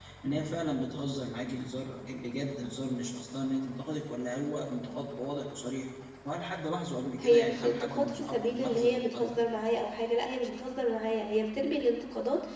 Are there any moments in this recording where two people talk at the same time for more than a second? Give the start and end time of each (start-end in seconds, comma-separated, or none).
7.2-9.4